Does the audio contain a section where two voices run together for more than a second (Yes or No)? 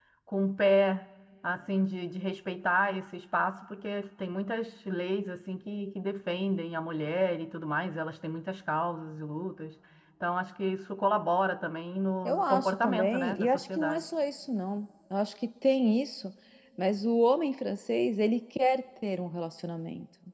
Yes